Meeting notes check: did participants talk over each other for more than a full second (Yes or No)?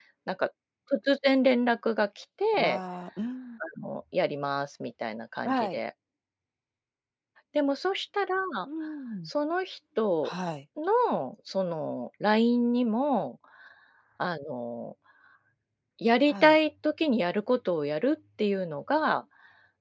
No